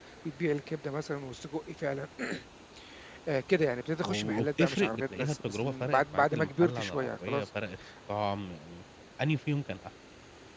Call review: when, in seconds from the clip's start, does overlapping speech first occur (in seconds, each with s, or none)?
4.0 s